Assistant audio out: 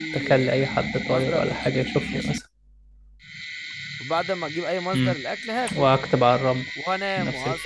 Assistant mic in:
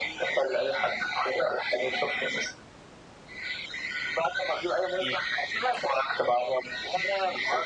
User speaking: No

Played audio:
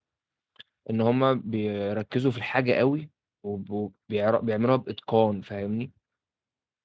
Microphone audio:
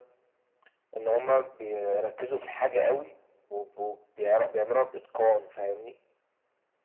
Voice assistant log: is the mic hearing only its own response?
Yes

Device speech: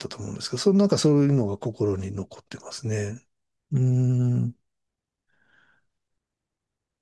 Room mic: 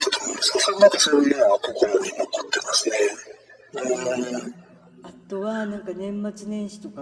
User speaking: Yes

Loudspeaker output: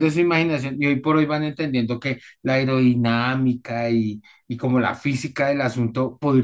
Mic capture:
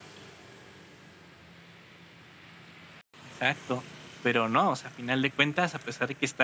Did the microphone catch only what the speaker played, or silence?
No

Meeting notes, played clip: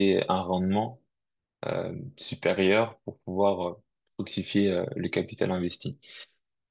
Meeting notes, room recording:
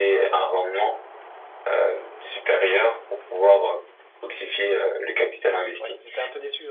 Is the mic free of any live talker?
No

